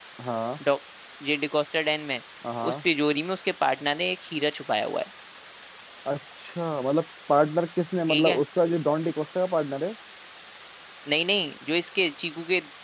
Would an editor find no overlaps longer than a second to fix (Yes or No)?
Yes